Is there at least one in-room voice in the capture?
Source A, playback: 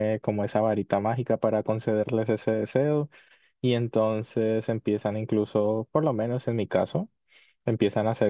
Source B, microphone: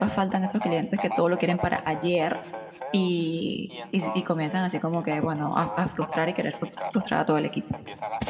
Yes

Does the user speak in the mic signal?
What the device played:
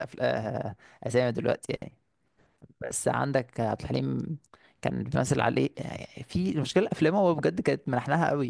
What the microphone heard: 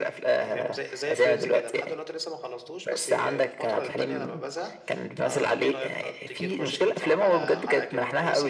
Yes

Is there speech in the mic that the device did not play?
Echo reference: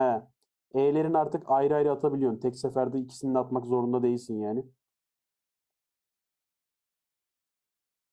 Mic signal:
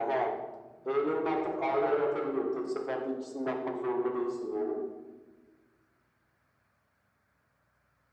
No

